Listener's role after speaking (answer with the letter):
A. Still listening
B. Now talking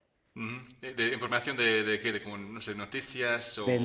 B